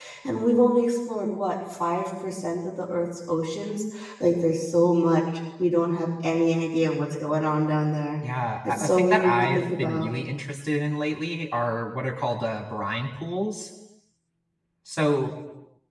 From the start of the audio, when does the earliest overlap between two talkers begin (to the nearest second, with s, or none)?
9 s